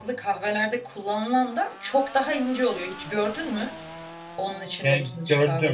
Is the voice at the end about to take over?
Yes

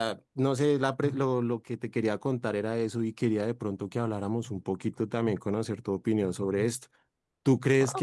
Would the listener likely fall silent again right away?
Yes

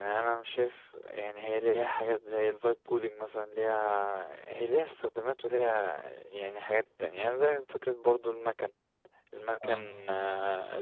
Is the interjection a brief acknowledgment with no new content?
Yes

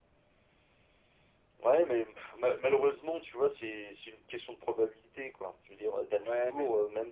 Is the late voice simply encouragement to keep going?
Yes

